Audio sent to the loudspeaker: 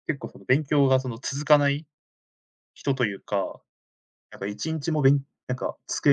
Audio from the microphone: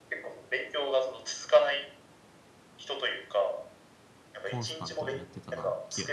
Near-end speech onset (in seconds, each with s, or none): 4.4 s